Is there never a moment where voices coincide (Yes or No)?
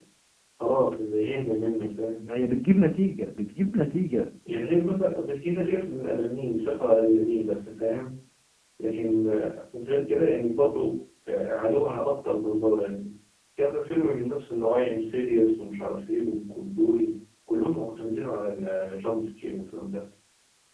Yes